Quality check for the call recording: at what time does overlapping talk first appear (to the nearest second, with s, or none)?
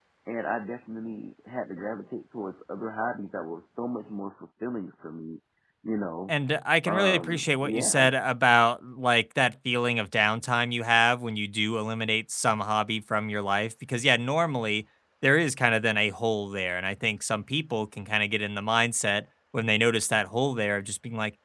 7 s